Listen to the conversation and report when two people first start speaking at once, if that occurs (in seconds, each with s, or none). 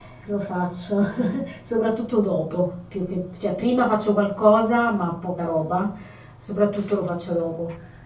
none